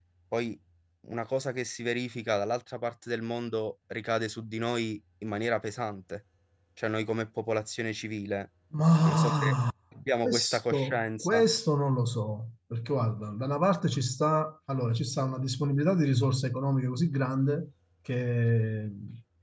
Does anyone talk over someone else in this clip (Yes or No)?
Yes